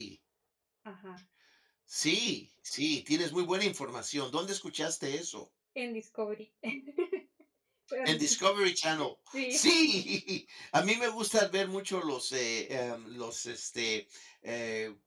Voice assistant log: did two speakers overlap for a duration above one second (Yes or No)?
No